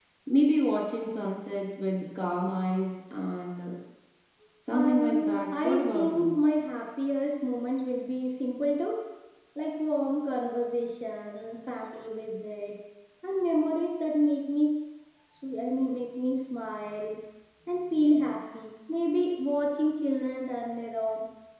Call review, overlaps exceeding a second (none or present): present